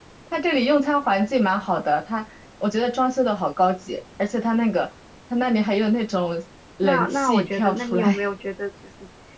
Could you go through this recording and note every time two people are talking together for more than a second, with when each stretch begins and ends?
6.8-8.2

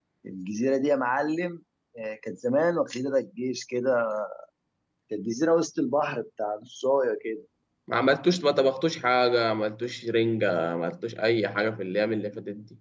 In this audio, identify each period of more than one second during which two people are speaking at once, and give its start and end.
none

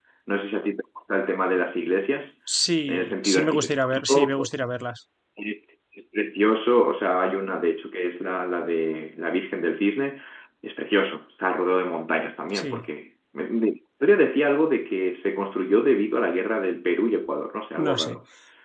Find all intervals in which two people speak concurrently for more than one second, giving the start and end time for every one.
2.9-4.5

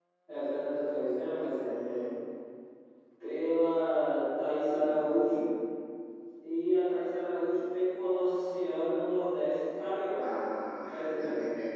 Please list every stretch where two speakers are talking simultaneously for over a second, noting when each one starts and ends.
none

